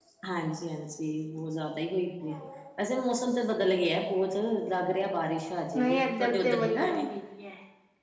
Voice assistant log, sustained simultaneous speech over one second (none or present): present